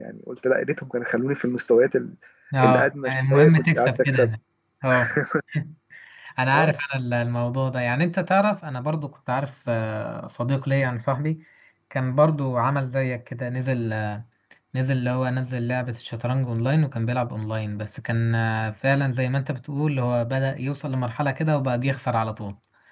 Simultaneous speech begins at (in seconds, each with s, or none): 2.6 s